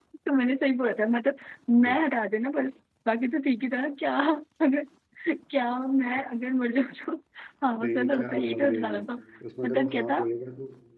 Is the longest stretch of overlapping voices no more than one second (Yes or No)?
No